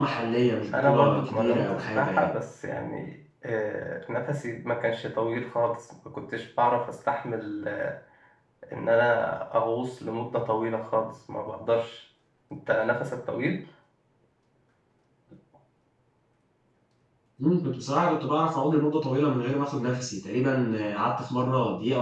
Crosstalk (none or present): present